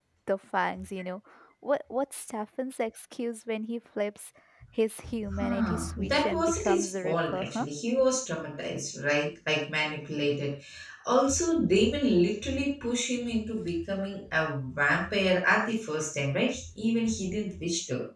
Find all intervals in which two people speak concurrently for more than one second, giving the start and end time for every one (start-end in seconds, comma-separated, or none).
5.3-7.7